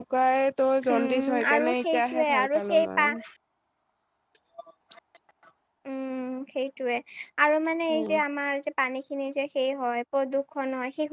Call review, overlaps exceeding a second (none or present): present